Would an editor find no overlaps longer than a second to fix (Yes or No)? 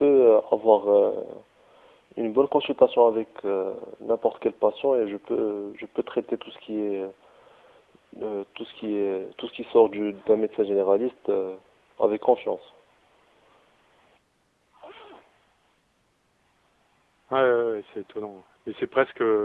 Yes